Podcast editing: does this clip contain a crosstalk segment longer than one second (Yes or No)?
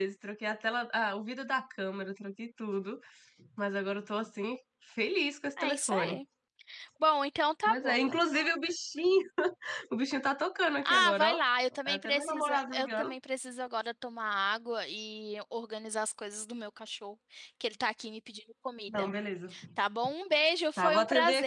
Yes